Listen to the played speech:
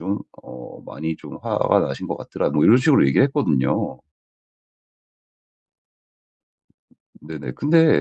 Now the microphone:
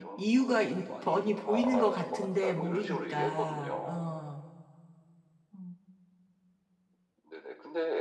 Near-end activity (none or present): present